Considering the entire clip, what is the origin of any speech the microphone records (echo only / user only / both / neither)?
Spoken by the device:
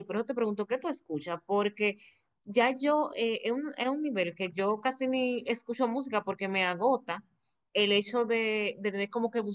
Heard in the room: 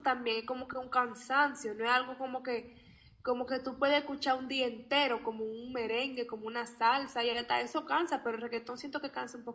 user only